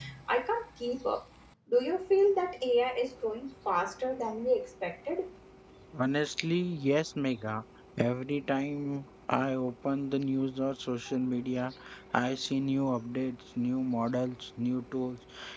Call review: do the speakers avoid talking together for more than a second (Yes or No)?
Yes